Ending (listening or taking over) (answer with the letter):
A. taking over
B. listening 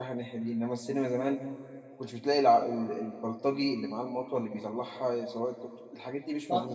A